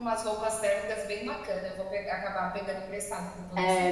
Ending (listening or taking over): taking over